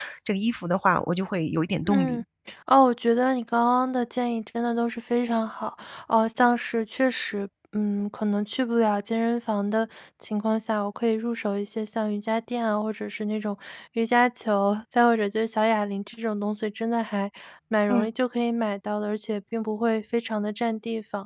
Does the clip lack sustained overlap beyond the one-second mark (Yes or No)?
Yes